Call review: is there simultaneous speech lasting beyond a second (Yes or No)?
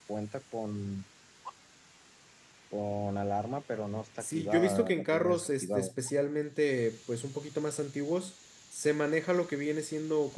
Yes